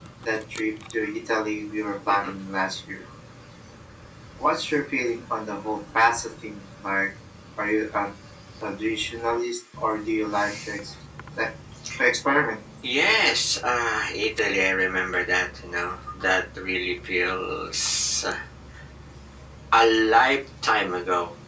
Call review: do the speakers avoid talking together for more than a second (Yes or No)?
Yes